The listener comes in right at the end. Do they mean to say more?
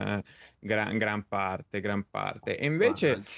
No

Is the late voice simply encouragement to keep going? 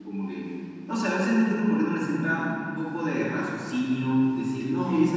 Yes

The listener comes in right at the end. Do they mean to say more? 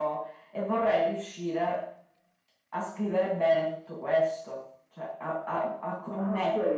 Yes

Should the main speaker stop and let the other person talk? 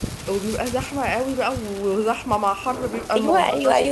Yes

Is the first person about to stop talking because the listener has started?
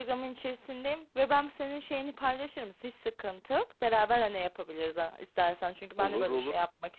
No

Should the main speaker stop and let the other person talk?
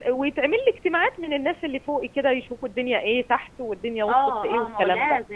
Yes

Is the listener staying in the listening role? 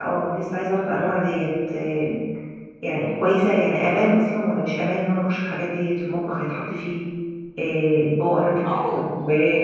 No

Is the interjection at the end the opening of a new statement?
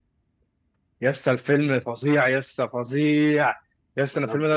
No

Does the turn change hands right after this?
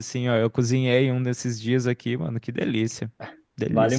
Yes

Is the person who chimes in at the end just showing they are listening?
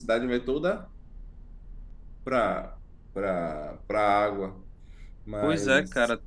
No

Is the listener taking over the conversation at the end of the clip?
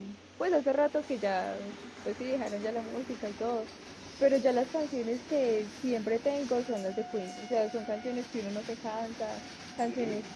No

